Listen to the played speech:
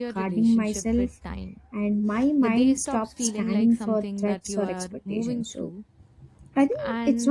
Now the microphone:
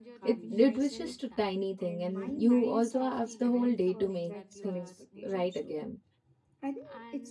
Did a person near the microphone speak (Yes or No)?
Yes